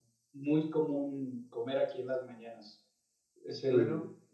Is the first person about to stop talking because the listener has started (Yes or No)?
No